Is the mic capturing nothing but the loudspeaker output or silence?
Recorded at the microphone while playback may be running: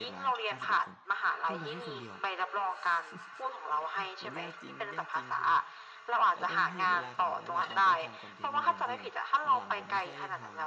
No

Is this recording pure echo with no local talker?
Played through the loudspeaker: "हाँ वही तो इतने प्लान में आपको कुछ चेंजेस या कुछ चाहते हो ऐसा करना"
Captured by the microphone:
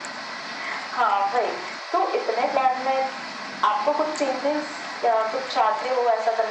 Yes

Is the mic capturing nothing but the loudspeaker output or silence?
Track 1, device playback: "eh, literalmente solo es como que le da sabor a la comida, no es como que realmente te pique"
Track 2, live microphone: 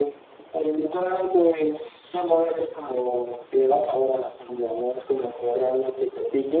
Yes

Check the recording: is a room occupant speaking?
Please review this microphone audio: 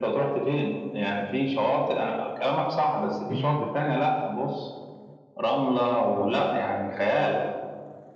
Yes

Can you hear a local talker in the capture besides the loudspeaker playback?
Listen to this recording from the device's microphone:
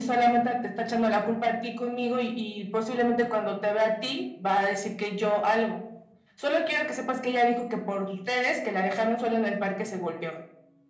No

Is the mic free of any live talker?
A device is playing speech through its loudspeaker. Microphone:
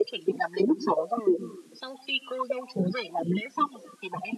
Yes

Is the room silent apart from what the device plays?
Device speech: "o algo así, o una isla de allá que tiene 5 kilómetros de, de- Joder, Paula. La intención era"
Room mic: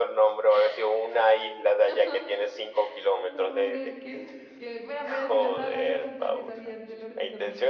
No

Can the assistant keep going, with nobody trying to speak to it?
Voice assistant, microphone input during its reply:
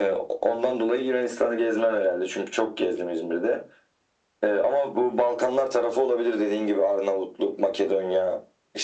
Yes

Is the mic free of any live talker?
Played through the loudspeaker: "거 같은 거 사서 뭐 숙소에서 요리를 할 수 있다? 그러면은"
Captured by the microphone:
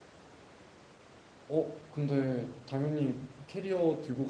No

